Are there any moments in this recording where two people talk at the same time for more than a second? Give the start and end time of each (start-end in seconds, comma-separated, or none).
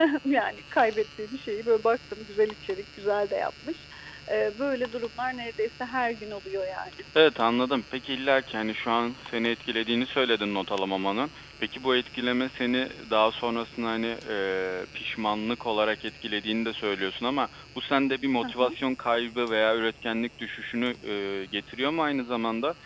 none